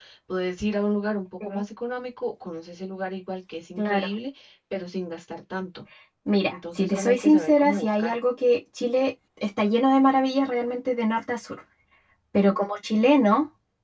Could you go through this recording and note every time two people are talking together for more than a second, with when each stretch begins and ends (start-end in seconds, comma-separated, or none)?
6.5-8.2